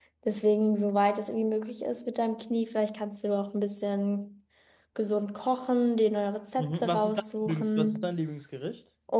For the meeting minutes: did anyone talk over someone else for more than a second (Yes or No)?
Yes